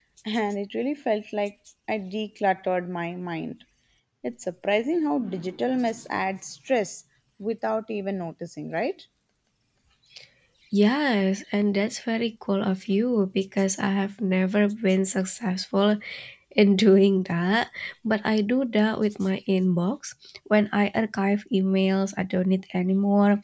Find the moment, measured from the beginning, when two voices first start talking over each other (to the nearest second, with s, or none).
none